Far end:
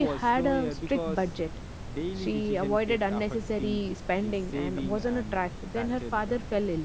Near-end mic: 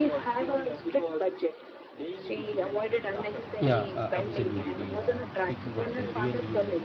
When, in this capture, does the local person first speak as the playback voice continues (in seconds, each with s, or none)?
3.6 s